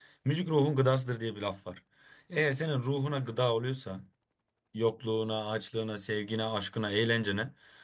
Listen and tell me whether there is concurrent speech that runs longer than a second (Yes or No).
No